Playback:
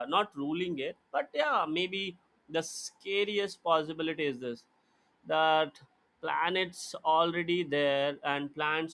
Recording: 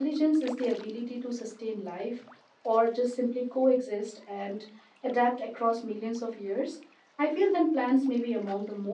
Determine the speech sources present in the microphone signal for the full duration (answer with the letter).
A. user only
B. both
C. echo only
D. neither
A